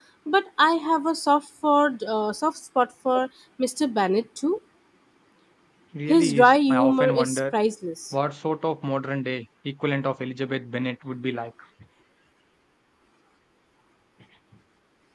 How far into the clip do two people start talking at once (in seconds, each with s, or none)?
6.1 s